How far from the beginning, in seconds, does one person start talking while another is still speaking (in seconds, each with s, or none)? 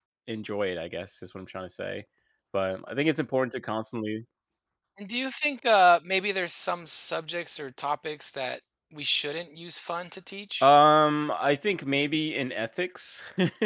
none